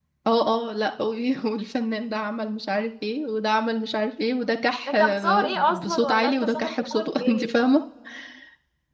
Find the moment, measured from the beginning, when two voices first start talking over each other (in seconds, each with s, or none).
4.9 s